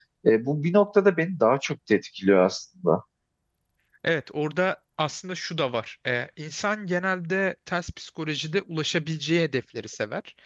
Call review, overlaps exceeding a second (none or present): none